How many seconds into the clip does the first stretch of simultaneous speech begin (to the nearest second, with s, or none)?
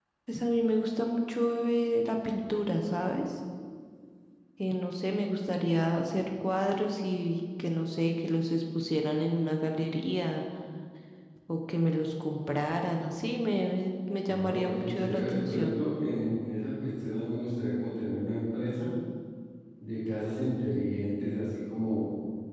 14 s